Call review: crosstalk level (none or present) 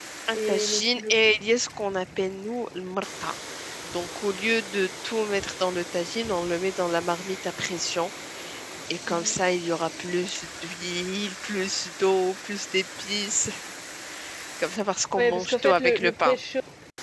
present